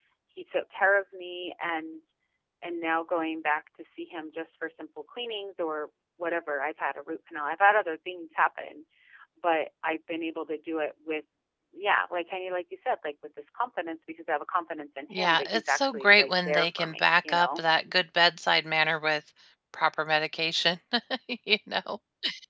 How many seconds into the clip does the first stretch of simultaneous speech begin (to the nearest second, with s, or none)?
15 s